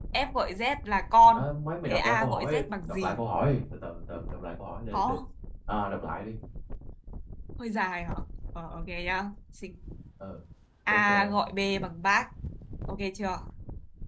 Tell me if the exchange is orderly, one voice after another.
No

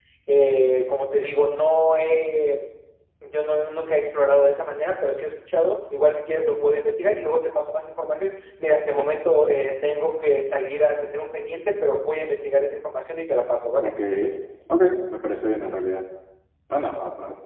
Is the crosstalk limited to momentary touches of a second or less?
Yes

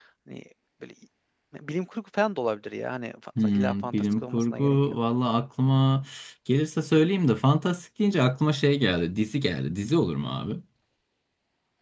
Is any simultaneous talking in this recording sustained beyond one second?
Yes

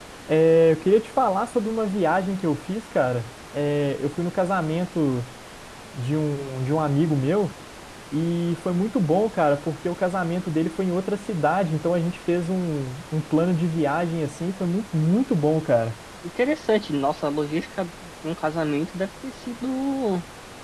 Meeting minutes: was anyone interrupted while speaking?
No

